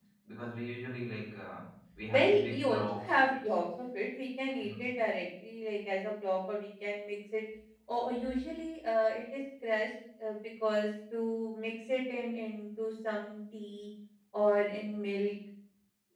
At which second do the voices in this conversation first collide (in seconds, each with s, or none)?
2.1 s